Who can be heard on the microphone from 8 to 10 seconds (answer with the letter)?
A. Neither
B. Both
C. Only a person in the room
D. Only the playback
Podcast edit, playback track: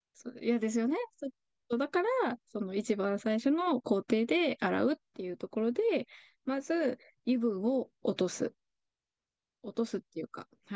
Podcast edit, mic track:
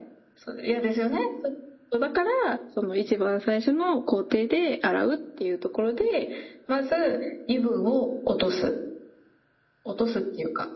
D